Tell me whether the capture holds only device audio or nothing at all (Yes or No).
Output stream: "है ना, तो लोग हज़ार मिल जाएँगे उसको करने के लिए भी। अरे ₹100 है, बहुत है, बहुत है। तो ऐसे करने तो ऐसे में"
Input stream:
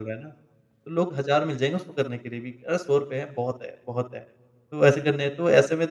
Yes